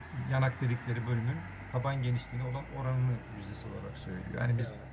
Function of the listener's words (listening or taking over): taking over